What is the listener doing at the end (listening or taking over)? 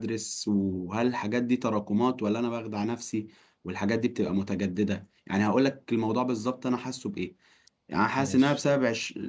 listening